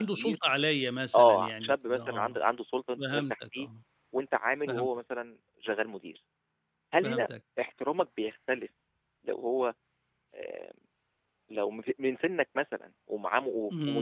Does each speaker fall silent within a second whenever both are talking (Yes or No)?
No